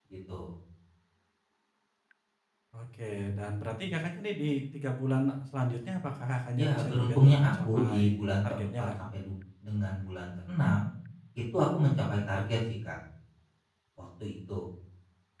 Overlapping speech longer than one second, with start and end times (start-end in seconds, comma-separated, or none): 6.6-8.0